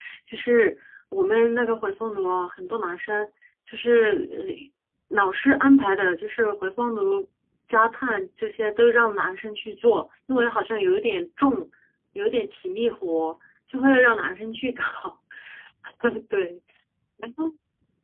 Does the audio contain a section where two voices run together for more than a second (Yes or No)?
No